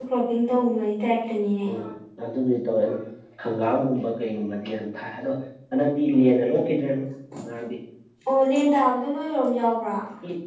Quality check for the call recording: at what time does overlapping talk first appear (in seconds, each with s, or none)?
none